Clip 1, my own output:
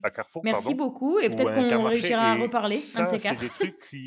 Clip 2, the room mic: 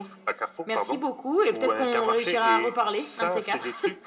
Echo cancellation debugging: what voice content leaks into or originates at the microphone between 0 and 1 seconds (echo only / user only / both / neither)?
echo only